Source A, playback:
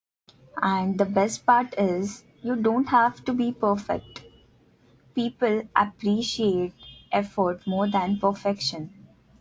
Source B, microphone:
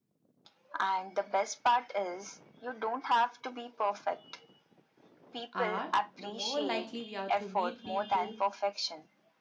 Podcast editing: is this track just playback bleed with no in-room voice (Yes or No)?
No